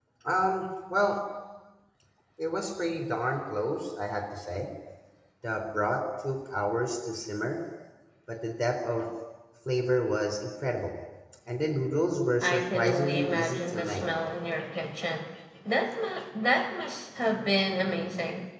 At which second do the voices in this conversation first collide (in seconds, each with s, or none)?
12.4 s